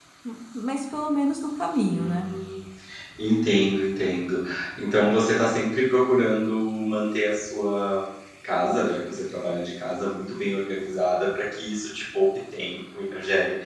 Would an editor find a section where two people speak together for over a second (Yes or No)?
No